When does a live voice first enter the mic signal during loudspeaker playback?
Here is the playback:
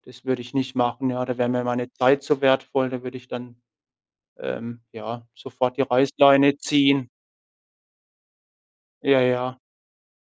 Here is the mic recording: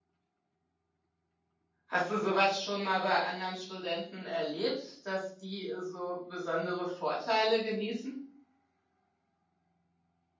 1.9 s

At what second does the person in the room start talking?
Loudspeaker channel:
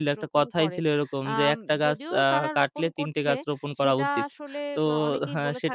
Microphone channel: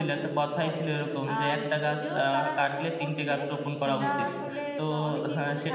3.8 s

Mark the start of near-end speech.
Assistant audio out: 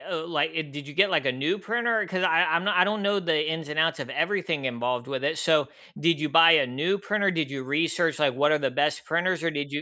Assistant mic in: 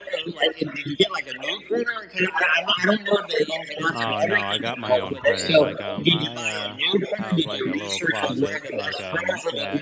3.9 s

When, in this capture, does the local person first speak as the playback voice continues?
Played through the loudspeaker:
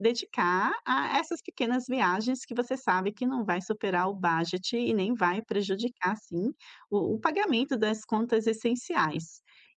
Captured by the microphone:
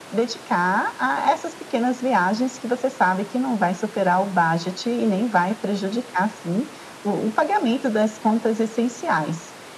none

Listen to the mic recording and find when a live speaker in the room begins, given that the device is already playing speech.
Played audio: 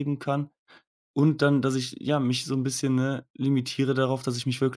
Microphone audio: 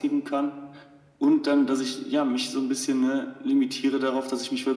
none

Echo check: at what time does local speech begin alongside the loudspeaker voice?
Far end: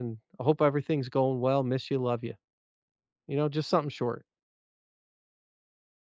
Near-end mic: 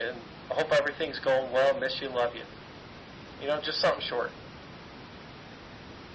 none

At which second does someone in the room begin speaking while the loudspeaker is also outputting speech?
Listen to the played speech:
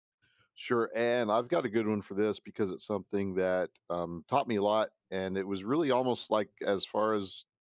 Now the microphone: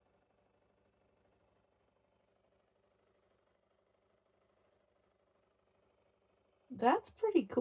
6.7 s

